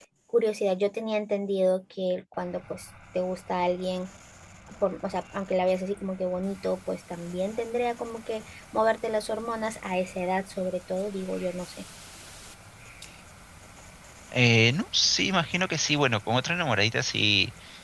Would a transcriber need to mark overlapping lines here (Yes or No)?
No